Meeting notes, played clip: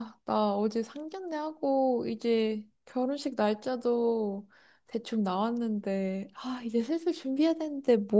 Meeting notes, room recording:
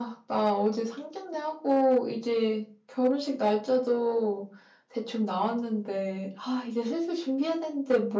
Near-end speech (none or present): none